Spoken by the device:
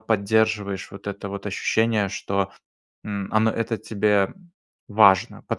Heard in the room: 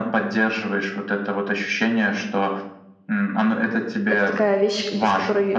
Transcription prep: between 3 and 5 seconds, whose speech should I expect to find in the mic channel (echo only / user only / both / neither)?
both